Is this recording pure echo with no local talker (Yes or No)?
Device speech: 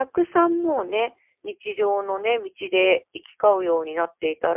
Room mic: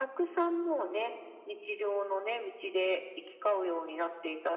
Yes